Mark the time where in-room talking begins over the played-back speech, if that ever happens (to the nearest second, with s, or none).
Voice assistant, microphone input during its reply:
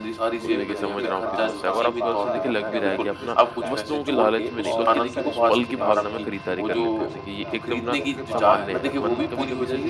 0 s